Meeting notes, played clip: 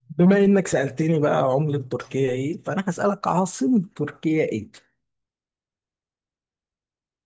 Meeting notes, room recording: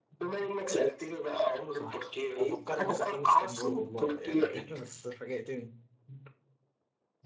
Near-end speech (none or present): present